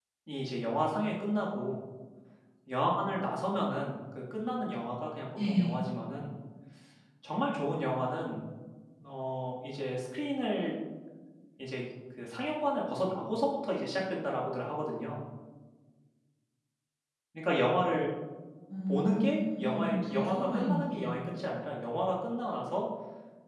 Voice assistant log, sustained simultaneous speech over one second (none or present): present